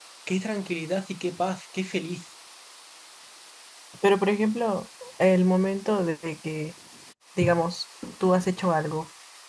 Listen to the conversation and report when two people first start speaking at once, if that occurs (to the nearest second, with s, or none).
none